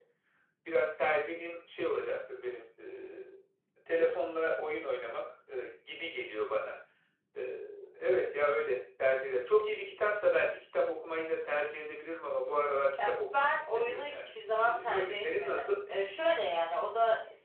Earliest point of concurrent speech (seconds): 13.0 s

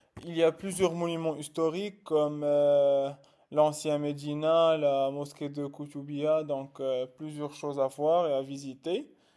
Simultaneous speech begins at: none

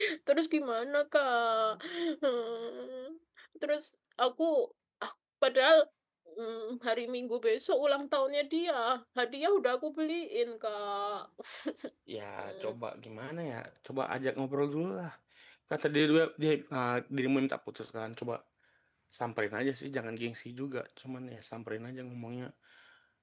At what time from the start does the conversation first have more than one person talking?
none

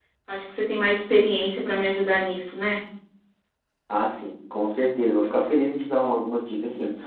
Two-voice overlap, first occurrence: none

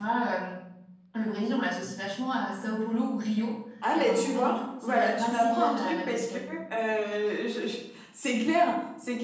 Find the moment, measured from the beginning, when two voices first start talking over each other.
3.8 s

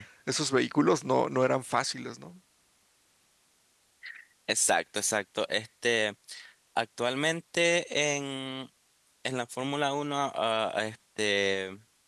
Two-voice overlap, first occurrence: none

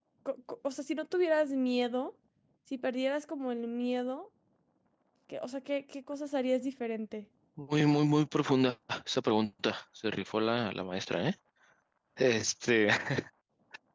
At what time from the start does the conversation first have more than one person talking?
none

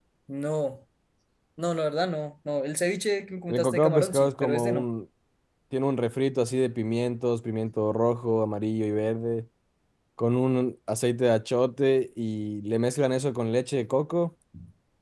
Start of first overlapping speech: 3.5 s

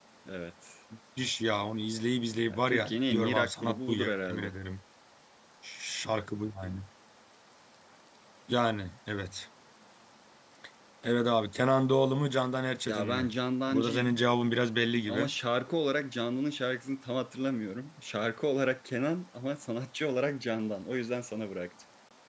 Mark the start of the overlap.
2.4 s

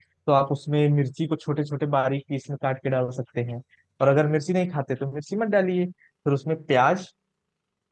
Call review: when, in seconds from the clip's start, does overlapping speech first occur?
none

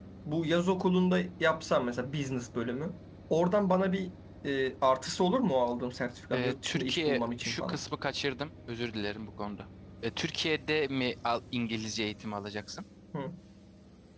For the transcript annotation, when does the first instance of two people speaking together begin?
6.3 s

